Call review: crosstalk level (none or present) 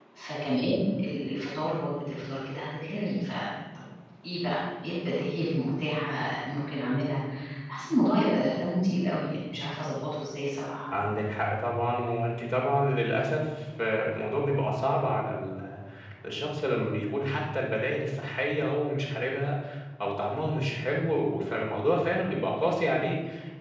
none